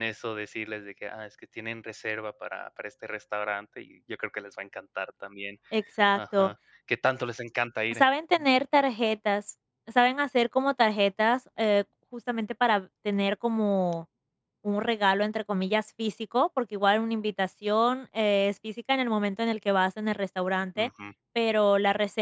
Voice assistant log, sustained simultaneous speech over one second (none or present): none